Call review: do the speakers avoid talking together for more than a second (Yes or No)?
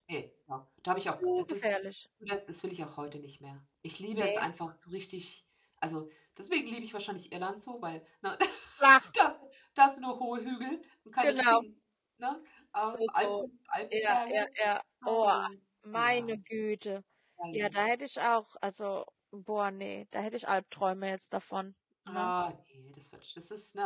Yes